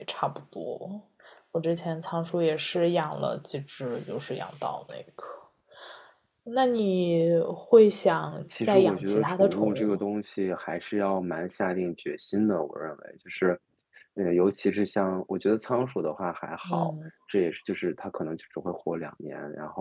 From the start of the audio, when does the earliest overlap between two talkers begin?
8.6 s

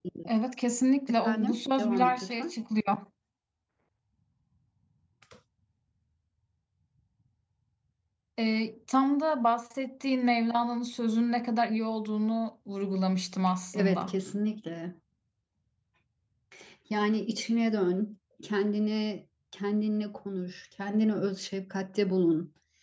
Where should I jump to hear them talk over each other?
1.1 s

